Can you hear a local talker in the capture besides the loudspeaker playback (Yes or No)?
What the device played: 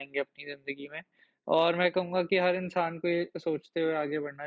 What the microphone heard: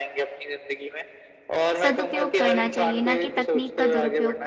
Yes